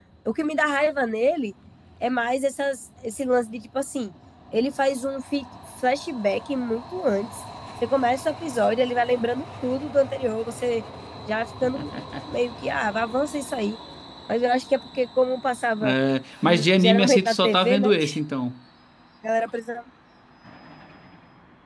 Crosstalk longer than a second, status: present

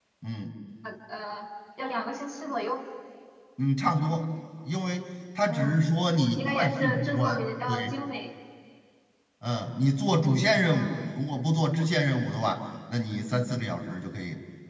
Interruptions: present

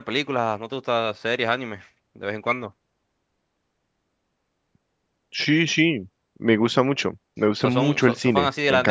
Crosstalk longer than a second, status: present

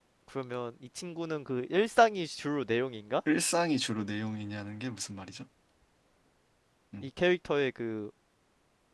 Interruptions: none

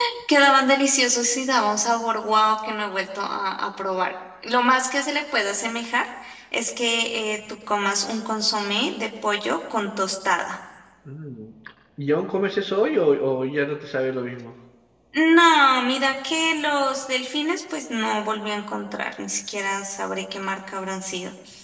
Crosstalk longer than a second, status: none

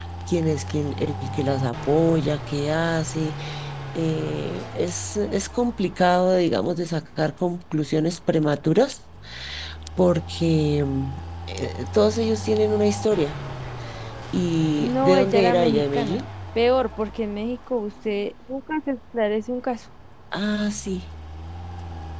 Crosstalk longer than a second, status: present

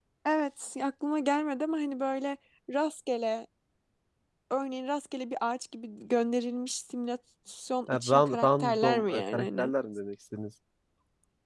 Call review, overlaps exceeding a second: present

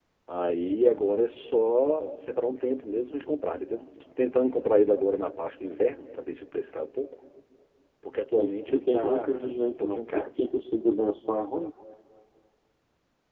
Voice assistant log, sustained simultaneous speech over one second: present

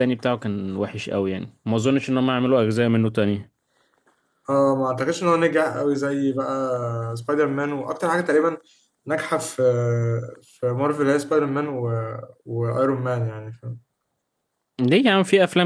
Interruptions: none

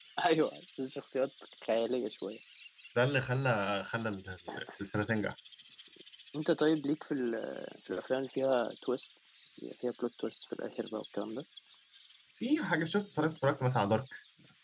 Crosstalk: none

